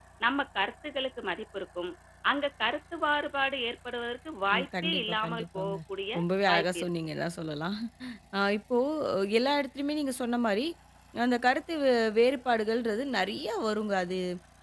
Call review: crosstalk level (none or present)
present